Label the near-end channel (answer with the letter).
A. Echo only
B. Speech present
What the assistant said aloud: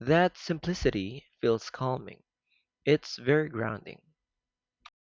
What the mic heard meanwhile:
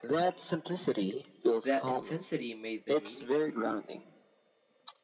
B